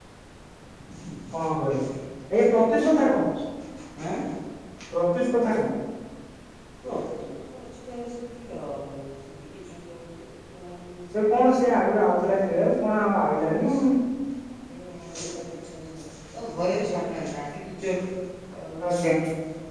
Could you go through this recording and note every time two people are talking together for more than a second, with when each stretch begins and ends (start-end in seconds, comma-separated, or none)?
none